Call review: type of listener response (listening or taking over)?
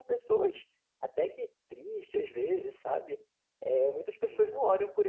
listening